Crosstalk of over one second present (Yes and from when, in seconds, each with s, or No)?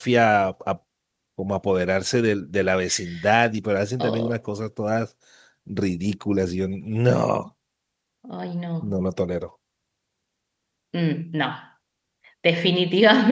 No